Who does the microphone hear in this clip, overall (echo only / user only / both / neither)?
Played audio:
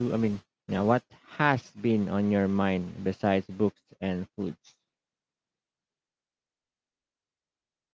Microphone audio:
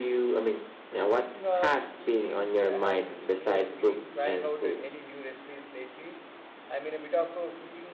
both